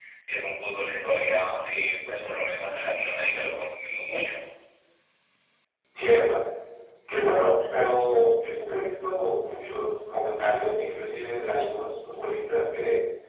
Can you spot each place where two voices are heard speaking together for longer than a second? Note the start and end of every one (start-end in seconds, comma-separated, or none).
none